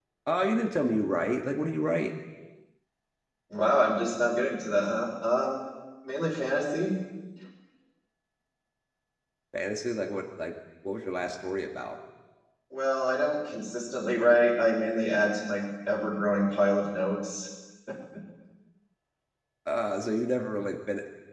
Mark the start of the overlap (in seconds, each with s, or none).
none